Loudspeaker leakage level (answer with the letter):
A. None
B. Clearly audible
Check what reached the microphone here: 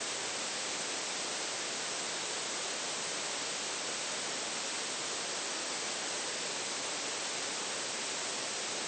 A